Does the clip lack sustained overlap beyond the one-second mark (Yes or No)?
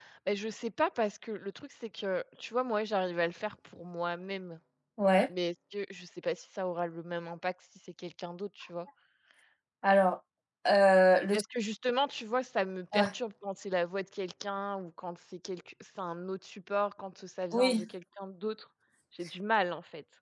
Yes